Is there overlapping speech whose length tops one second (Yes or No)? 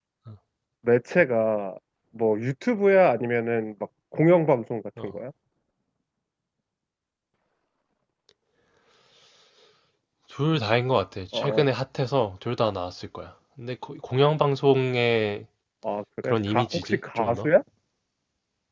Yes